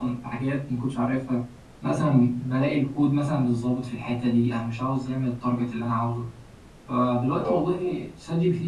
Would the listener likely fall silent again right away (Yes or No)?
Yes